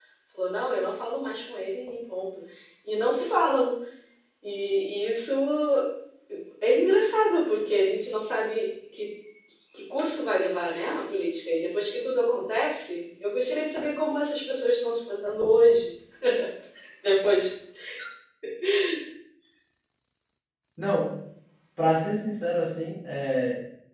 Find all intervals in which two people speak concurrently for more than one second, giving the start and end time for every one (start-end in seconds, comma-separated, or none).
none